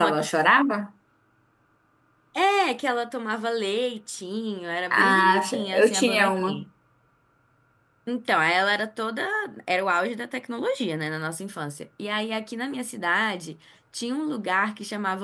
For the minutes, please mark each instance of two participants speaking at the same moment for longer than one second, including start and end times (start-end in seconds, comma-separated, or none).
4.9-6.6